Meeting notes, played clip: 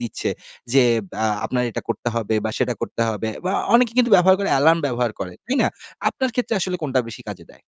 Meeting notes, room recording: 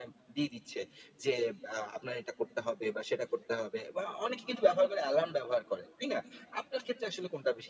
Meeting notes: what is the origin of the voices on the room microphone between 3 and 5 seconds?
echo only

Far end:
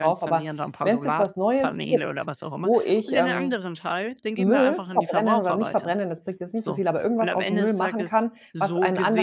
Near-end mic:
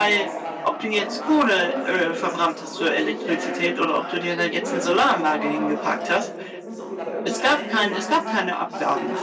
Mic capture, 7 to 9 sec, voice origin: both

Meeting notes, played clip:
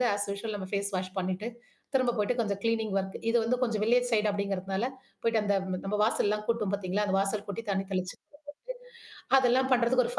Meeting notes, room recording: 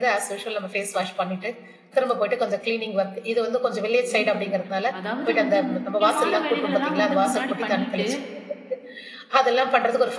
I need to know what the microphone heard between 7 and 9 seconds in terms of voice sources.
both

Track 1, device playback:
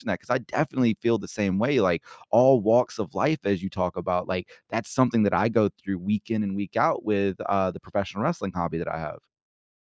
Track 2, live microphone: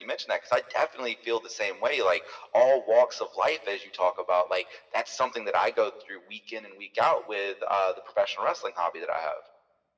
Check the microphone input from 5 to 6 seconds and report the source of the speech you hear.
echo only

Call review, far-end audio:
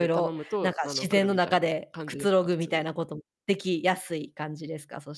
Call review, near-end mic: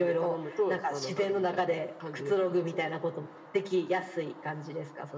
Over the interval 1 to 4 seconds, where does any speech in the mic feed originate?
echo only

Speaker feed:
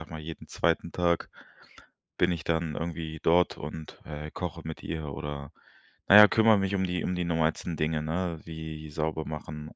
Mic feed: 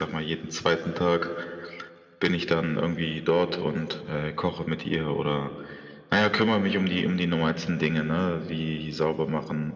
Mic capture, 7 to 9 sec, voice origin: echo only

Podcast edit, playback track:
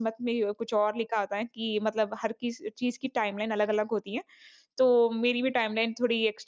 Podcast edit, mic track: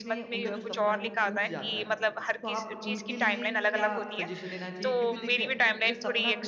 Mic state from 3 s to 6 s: both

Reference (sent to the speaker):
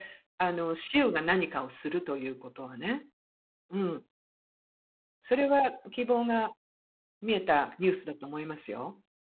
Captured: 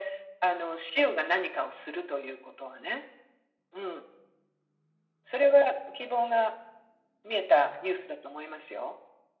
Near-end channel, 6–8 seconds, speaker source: echo only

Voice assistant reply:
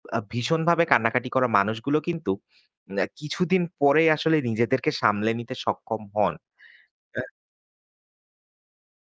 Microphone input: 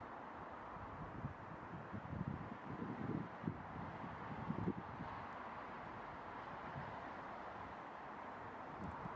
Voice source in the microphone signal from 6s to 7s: neither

